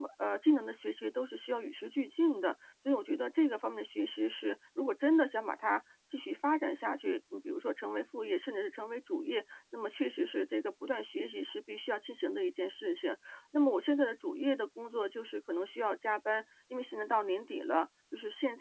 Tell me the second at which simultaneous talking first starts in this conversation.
none

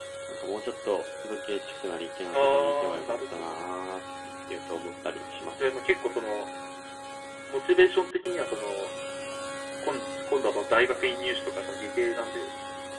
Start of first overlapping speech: 2.3 s

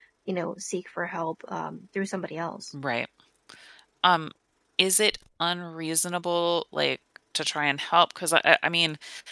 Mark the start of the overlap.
none

